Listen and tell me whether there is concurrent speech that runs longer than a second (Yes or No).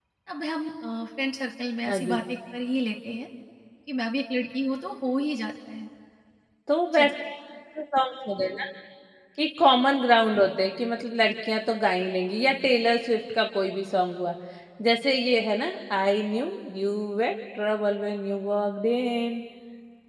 No